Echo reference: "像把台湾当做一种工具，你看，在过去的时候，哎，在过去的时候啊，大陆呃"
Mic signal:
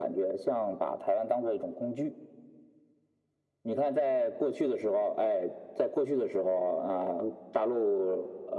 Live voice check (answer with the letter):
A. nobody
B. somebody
A